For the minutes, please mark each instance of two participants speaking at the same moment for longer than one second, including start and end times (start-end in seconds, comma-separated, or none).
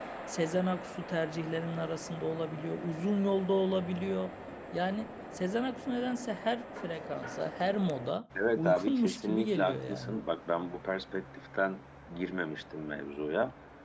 8.6-10.2